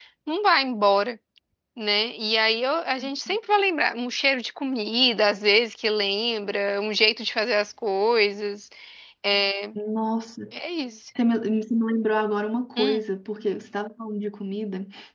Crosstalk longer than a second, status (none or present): none